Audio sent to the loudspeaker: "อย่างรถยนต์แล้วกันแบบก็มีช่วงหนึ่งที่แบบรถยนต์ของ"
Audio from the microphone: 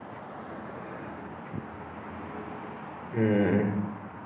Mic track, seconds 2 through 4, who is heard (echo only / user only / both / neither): user only